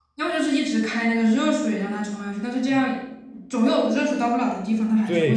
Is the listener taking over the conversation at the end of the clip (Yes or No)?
Yes